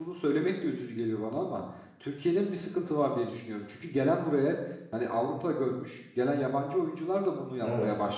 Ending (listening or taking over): listening